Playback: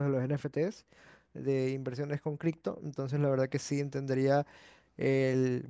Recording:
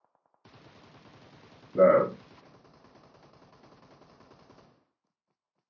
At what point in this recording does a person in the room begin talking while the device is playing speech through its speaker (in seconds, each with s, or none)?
1.7 s